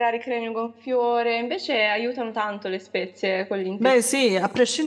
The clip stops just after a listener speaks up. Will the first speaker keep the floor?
No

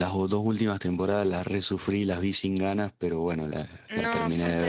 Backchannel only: No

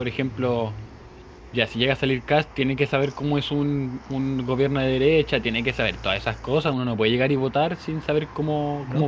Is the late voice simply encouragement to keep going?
No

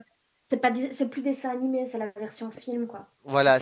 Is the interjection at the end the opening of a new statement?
Yes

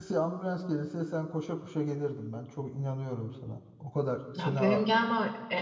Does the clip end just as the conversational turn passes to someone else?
Yes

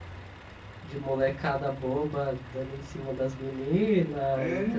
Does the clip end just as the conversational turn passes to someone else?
No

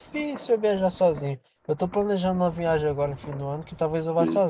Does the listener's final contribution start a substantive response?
No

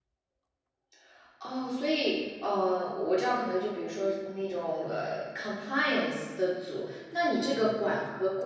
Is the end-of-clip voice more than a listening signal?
No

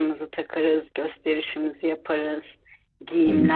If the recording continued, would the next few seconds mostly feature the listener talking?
No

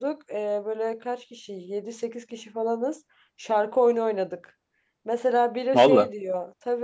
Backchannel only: Yes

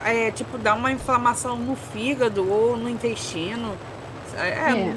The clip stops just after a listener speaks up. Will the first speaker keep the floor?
Yes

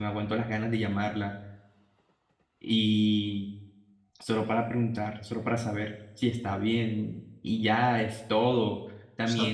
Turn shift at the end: No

